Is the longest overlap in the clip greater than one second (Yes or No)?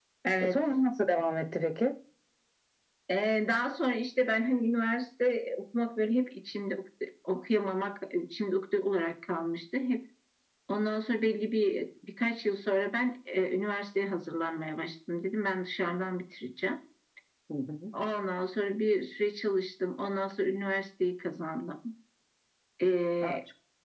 No